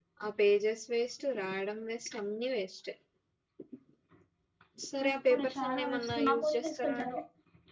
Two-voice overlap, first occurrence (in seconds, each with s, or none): 5.0 s